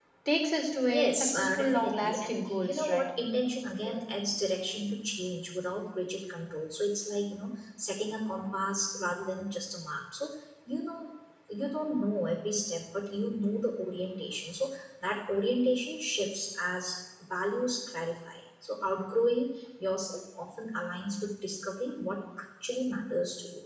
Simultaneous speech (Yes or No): Yes